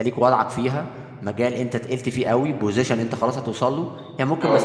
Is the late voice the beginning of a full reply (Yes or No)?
No